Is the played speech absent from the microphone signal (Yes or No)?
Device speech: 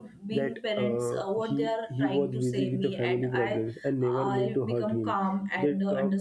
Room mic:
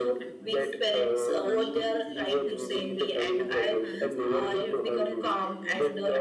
No